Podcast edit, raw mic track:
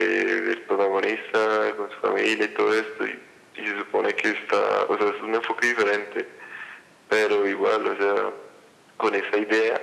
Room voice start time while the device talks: none

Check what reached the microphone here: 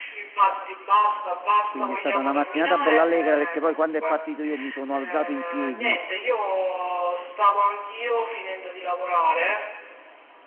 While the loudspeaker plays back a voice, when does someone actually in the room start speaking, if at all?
2 s

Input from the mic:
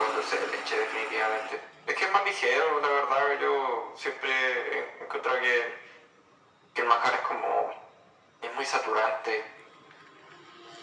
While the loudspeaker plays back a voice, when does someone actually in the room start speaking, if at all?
none

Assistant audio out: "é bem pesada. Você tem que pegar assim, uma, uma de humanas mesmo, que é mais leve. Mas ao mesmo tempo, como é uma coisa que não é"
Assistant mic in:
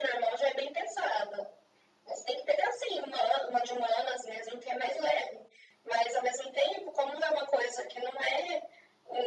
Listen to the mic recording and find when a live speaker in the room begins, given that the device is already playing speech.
none

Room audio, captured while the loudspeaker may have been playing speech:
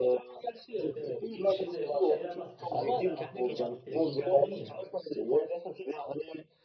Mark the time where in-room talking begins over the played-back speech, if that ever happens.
1 s

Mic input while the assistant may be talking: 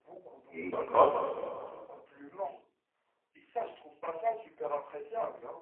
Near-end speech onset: 0 s

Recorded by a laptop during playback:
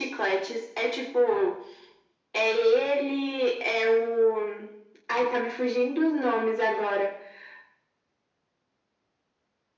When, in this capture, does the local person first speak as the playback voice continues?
none

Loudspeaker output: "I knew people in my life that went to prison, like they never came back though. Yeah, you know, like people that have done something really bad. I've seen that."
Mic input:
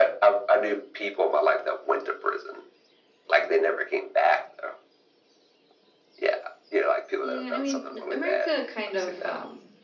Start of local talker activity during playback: 7 s

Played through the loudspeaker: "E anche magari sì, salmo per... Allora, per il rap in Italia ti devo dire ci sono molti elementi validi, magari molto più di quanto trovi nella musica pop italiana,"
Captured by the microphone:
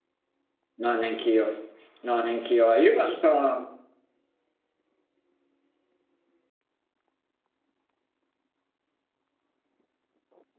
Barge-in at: 1 s

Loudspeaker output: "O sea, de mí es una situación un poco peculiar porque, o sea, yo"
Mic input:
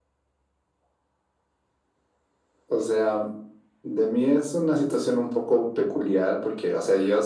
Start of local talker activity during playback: none

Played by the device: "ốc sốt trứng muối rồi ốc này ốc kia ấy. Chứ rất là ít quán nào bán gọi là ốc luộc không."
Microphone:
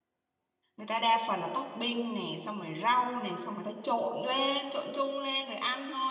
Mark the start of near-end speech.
1 s

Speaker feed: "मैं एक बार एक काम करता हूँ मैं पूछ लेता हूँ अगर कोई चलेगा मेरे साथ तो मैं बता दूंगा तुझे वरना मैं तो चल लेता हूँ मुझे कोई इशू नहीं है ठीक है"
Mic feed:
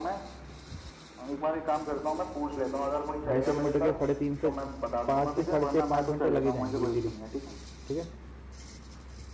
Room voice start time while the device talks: 3 s

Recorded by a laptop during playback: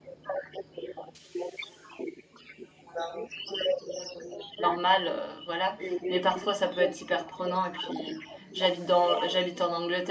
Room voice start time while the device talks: 5 s

